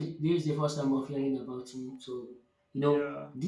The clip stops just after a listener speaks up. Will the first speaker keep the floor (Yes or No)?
Yes